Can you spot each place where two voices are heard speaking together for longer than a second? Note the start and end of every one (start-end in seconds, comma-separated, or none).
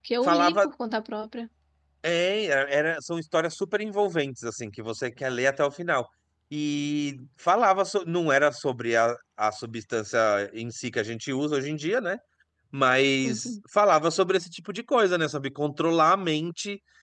none